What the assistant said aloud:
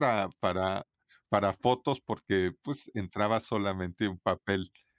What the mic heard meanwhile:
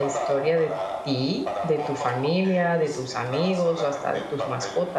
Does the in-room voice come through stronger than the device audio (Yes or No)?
Yes